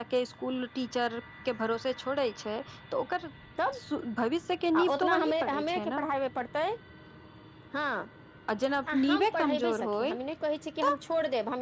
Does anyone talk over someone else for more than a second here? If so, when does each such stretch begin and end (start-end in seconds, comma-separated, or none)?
4.7-6.0, 8.9-10.1